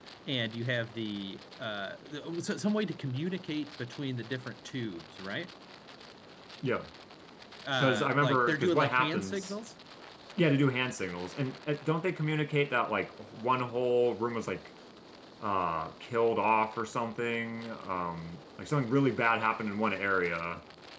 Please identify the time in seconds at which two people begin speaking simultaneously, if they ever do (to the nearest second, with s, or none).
8 s